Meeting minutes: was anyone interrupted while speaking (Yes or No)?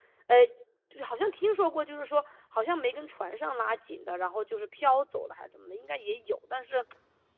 No